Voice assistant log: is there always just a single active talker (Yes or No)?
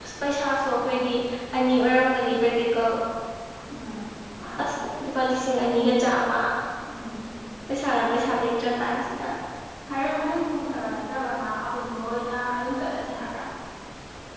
Yes